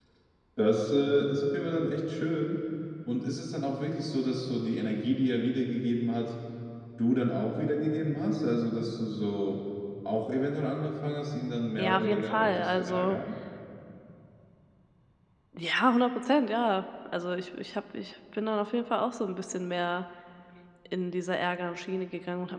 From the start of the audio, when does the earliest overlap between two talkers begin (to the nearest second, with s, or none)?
12 s